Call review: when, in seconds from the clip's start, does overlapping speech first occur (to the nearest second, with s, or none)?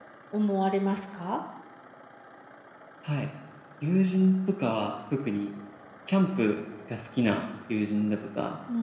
none